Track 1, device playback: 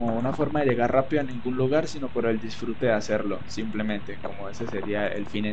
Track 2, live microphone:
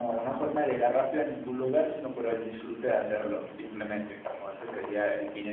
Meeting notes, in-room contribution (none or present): none